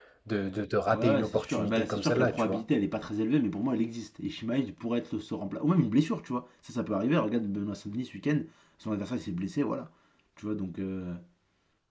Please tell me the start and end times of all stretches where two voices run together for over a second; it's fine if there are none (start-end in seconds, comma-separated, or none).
0.9-2.6